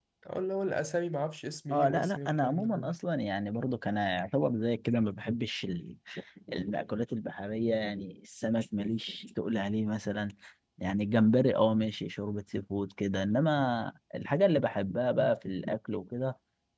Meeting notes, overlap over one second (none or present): present